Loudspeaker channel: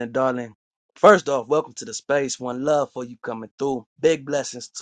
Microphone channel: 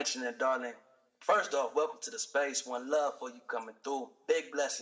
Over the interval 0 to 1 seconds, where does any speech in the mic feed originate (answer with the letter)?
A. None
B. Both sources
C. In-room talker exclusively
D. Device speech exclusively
D